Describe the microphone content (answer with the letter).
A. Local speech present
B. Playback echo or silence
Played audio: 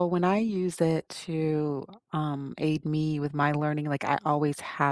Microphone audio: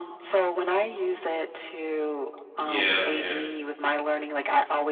A